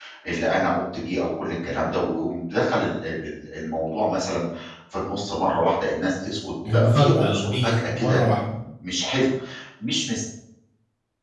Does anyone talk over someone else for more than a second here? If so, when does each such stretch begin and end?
6.7-8.4

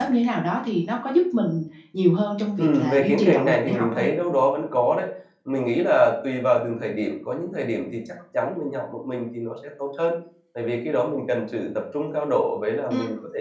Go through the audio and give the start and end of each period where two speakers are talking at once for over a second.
2.6-4.0

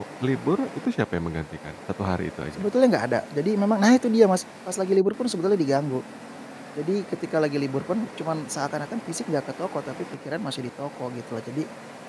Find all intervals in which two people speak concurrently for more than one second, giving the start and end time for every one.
none

